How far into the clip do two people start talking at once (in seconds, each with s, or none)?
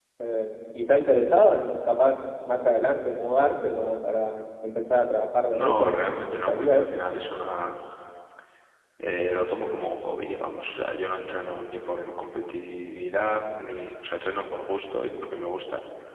5.5 s